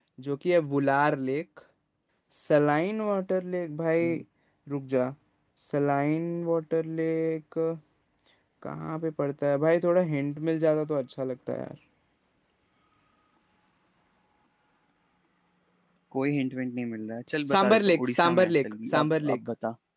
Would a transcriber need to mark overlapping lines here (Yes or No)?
Yes